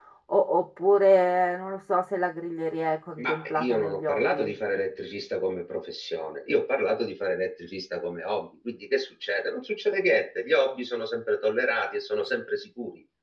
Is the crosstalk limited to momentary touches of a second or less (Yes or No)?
No